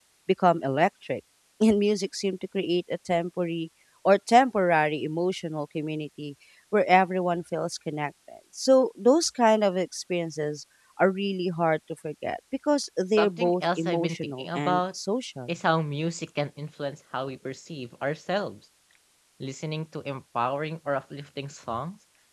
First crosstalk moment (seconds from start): 13.2 s

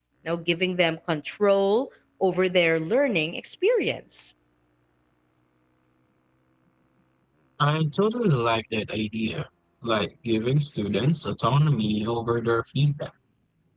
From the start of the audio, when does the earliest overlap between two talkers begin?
none

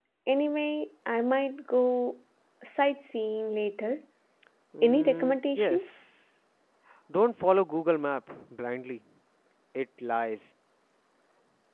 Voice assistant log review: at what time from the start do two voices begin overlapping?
4.8 s

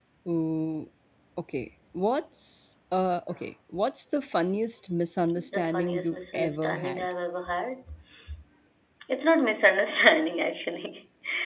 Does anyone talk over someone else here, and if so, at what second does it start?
5.4 s

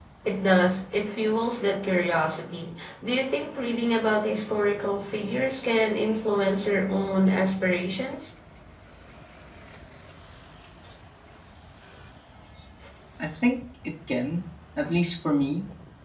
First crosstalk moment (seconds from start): none

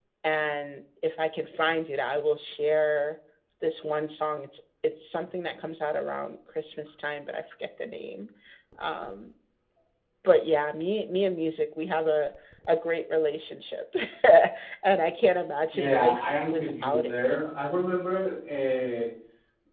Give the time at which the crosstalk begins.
15.7 s

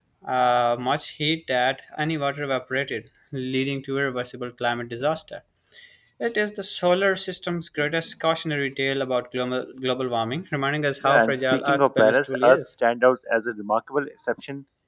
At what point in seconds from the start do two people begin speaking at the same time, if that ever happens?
11.0 s

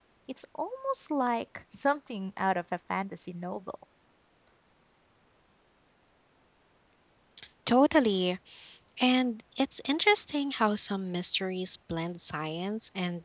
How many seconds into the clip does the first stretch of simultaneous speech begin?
none

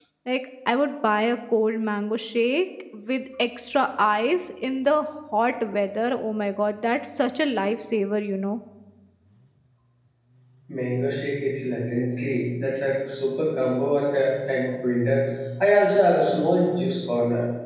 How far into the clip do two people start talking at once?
none

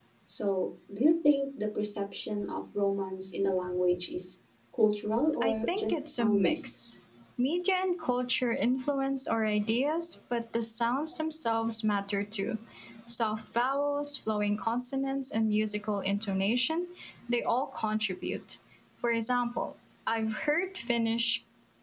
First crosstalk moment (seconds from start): 5.4 s

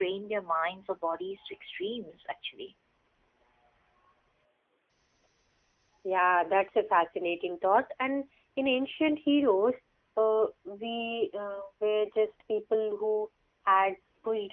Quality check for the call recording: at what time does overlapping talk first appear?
none

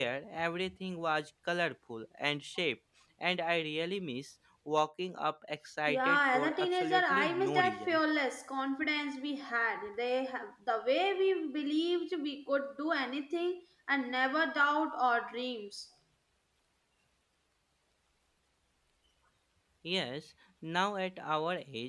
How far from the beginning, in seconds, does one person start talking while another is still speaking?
5.9 s

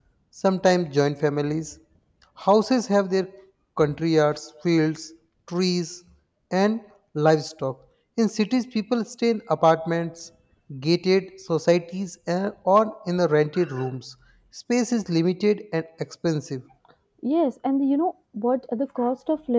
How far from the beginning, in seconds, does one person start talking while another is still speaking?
none

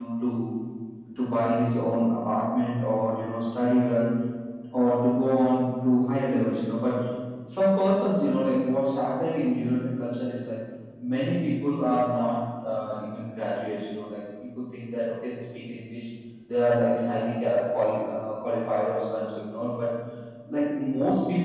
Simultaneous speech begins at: none

